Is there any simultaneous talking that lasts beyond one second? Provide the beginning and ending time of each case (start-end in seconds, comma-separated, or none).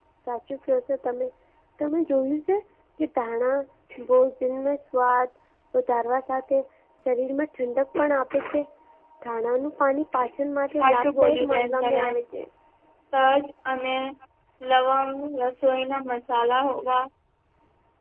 10.8-12.1